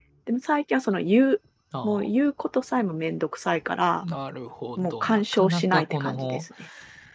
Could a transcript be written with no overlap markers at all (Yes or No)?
No